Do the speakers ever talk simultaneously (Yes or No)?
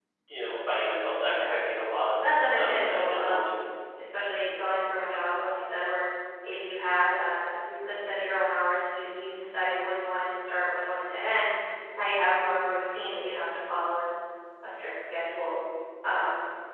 Yes